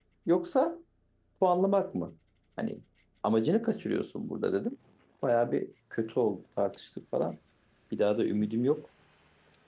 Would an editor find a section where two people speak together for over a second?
No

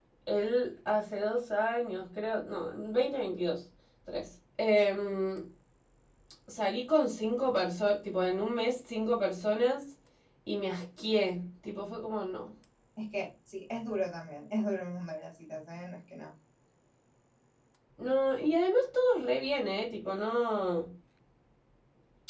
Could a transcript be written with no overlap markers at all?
Yes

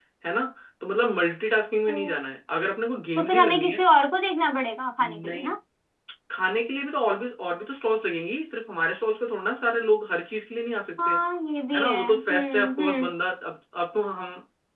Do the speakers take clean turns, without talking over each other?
No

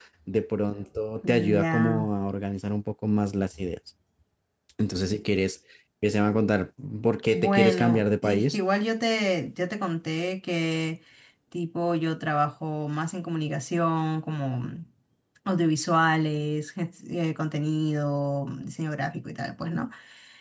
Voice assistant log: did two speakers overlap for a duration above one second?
Yes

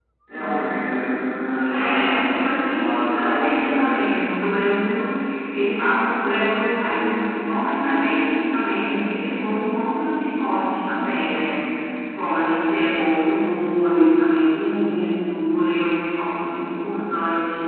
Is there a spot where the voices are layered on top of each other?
Yes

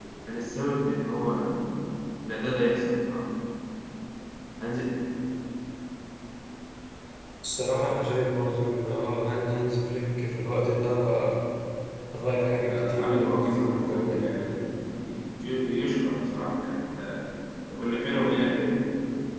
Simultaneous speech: Yes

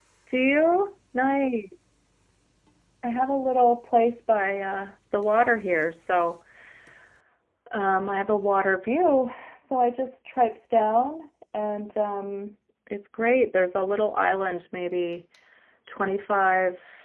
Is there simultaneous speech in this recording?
No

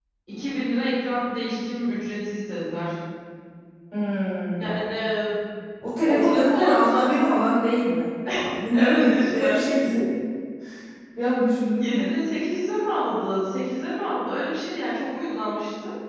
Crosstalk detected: Yes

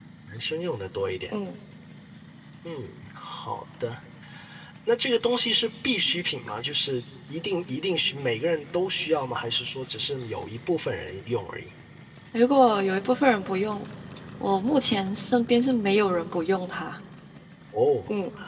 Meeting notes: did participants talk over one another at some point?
No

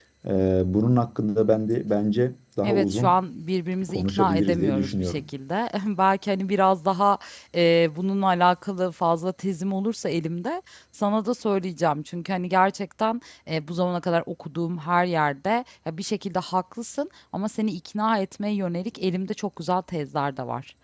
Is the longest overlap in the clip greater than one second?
Yes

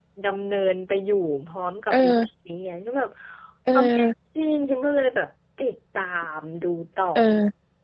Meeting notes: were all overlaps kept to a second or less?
Yes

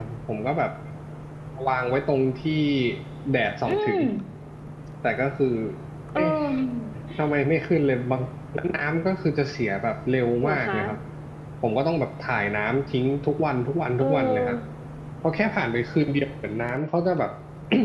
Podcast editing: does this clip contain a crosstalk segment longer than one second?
No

